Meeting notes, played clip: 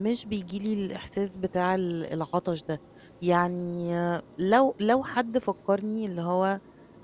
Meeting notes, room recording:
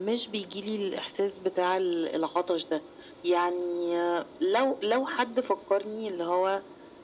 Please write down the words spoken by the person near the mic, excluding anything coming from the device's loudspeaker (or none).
none